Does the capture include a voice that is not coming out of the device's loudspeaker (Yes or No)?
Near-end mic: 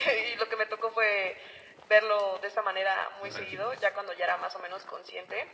Yes